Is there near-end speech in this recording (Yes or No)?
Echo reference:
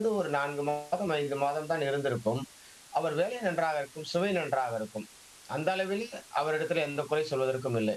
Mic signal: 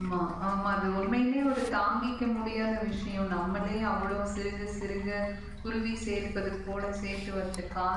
Yes